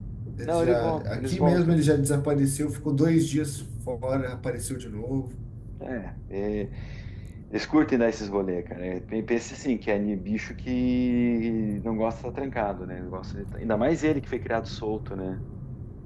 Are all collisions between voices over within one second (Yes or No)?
No